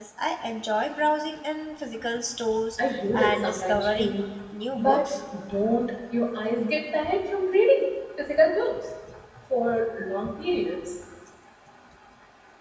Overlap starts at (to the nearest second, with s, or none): 3 s